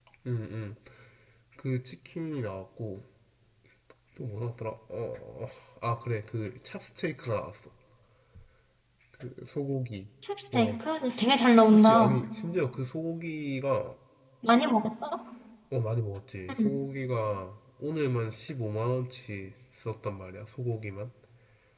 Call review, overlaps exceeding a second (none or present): none